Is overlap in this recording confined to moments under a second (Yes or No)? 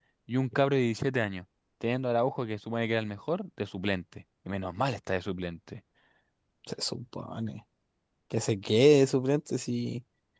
Yes